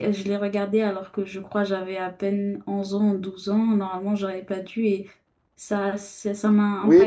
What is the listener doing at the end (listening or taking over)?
taking over